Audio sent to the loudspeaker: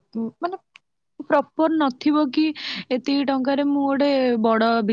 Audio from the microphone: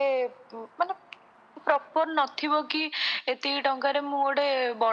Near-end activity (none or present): none